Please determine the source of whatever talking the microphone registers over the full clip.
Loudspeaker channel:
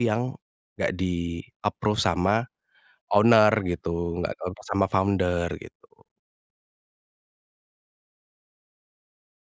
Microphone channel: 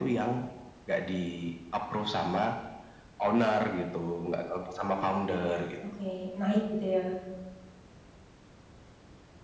both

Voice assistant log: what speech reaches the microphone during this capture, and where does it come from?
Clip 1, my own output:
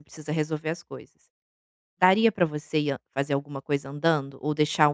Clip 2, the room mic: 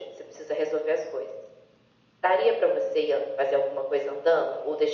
echo only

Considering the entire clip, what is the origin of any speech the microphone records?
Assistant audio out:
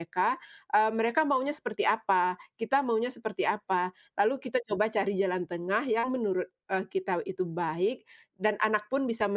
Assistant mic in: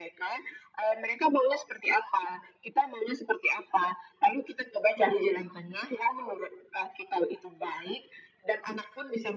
echo only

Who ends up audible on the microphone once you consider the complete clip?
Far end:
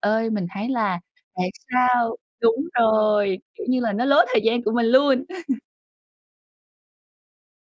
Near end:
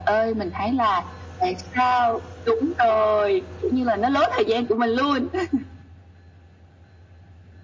echo only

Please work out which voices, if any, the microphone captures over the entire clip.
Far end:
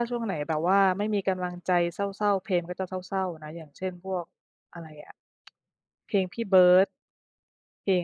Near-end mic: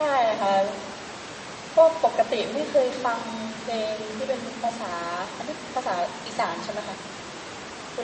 user only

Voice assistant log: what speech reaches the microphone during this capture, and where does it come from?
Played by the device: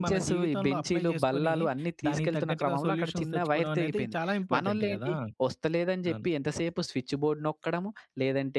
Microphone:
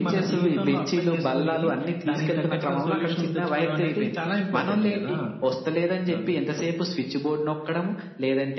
echo only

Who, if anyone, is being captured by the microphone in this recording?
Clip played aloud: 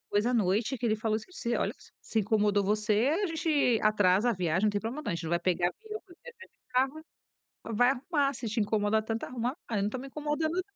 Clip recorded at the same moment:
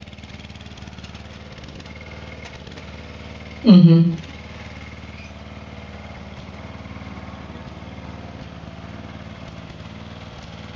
user only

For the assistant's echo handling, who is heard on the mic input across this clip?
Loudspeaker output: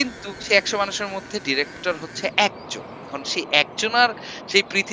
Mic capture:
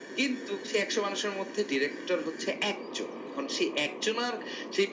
echo only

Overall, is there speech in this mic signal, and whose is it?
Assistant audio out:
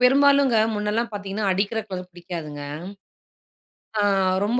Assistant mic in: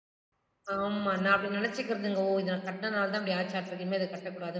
user only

